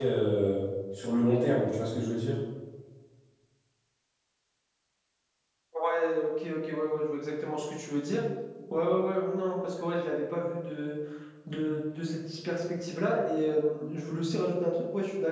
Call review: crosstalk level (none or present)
none